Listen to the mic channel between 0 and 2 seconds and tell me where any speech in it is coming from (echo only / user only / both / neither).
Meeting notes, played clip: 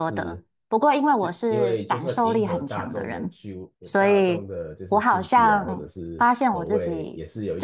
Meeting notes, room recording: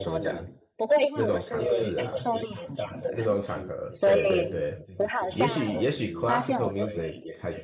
both